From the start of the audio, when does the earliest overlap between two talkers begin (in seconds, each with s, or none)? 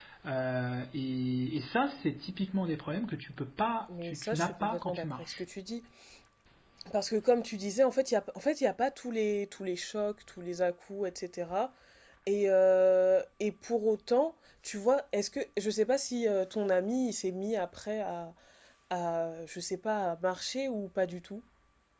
3.9 s